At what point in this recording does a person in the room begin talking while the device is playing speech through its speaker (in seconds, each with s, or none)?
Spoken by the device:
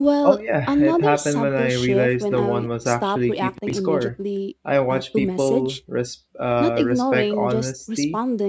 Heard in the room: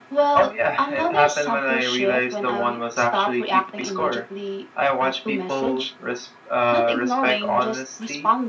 none